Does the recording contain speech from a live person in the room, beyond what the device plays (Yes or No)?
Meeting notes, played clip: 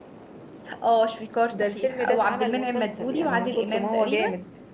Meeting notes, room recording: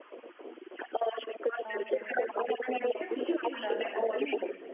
Yes